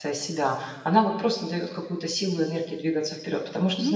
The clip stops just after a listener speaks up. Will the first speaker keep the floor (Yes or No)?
Yes